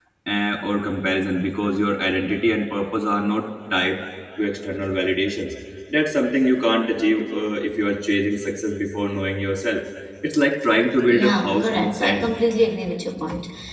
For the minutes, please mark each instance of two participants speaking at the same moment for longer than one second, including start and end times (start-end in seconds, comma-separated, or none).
11.1-12.3